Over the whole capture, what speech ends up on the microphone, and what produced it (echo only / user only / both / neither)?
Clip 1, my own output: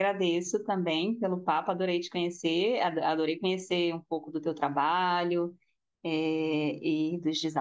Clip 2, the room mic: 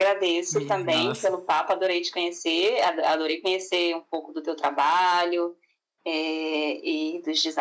both